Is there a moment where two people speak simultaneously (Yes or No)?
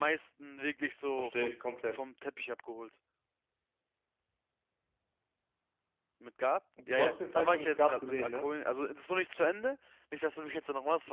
Yes